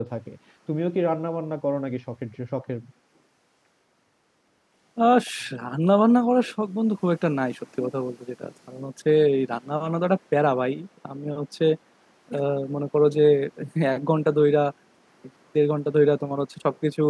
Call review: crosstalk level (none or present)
none